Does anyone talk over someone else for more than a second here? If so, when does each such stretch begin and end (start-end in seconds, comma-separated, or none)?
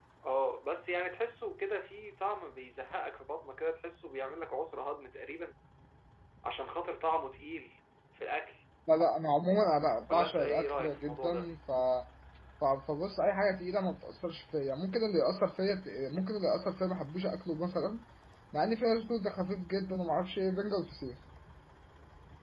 10.1-11.5